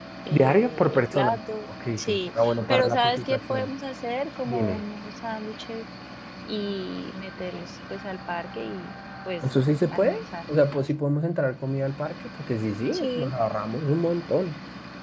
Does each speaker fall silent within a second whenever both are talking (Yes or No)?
No